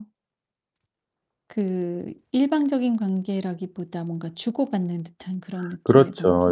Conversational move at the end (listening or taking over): taking over